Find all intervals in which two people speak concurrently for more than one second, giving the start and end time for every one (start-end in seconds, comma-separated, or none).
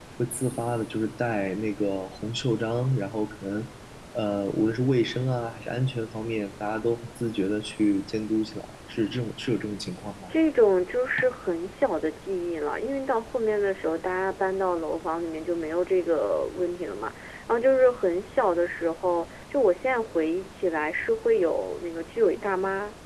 none